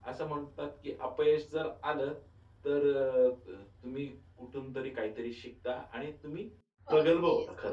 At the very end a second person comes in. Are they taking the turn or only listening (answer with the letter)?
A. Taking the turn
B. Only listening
A